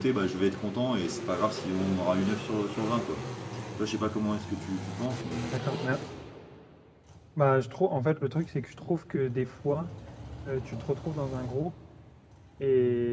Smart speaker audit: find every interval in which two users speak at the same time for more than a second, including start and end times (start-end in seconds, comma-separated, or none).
none